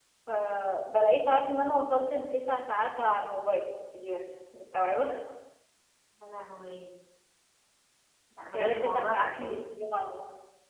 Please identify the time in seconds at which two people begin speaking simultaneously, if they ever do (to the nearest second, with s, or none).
9 s